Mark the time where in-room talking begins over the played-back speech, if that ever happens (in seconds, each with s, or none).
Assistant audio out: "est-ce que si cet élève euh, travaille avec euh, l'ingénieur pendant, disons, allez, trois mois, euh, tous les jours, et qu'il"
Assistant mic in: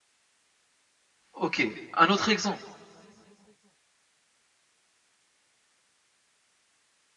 1.3 s